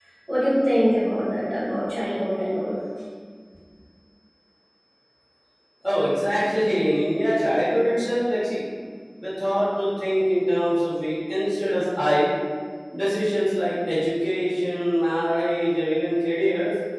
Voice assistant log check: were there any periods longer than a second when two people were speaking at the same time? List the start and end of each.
none

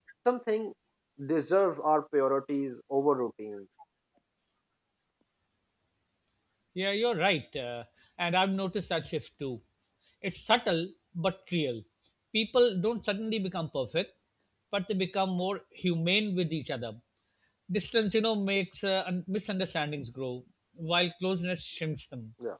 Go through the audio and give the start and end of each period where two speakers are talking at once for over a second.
none

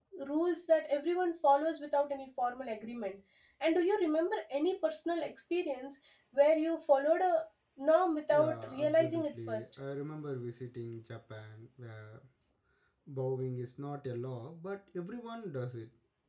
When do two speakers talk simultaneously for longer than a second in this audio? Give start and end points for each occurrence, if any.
8.3-9.6

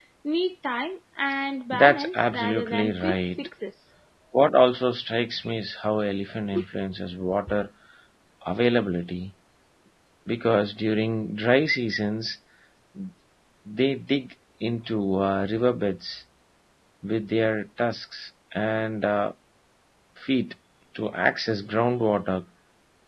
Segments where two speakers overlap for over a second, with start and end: 1.7-3.5

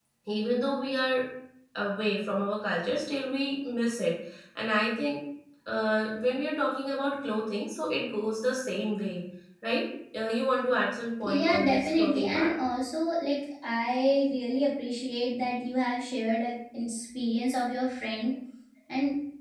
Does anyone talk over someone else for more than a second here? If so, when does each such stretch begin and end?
11.2-12.5

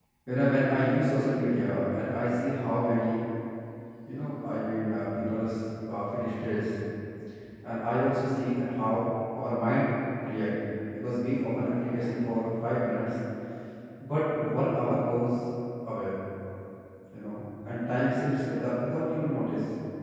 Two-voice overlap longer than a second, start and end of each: none

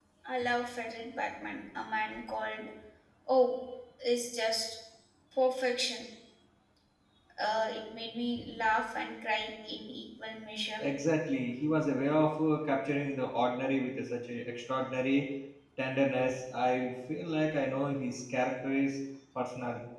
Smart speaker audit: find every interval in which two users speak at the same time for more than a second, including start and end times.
none

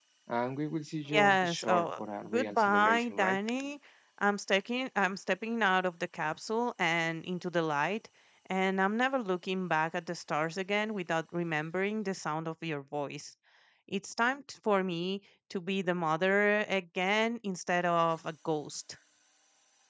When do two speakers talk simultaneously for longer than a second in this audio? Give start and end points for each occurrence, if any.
1.1-3.4

